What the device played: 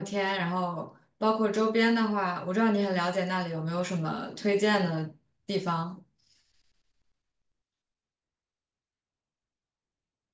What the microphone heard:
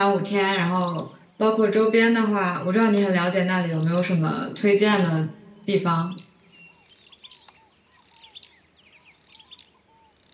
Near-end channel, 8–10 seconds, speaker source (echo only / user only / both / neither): neither